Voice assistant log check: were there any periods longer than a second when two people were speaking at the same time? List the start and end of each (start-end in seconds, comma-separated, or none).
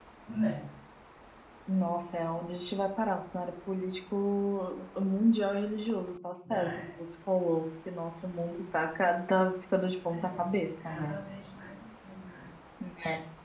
none